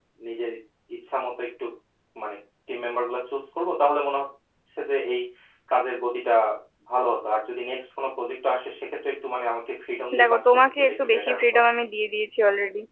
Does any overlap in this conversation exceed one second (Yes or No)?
Yes